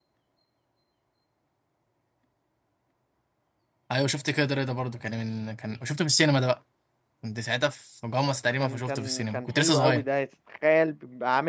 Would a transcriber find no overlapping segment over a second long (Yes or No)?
No